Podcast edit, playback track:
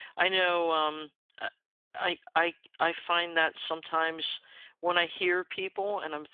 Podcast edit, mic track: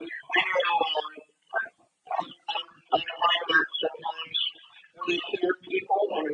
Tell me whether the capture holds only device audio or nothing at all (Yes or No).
Yes